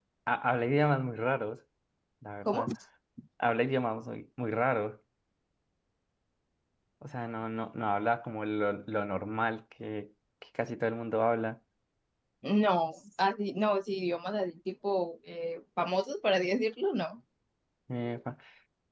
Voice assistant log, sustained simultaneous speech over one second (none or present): none